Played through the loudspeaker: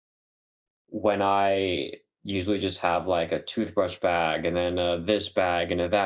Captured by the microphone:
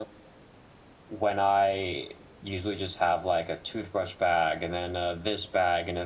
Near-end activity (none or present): none